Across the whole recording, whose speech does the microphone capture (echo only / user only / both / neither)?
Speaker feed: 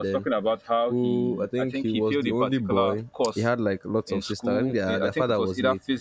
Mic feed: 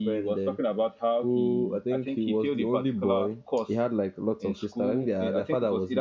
echo only